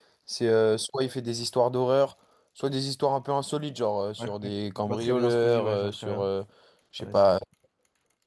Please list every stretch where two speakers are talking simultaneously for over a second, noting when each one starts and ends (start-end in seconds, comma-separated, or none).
4.9-6.3